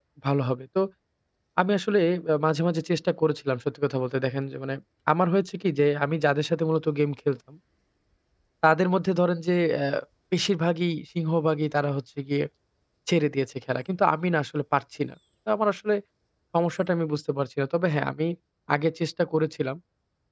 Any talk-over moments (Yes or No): No